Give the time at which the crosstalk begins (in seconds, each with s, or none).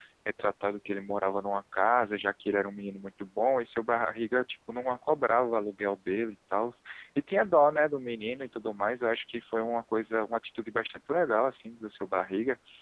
none